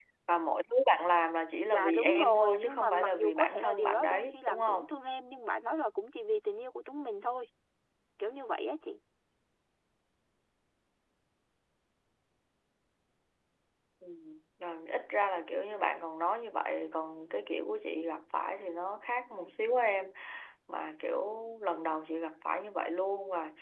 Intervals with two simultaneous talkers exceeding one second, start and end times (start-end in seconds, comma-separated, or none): 1.7-4.9